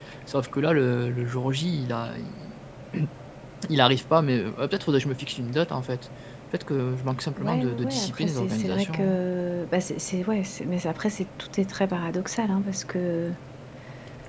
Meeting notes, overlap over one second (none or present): present